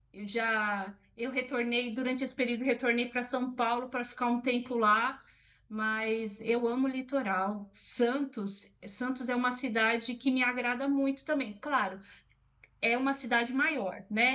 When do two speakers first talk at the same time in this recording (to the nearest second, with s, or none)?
none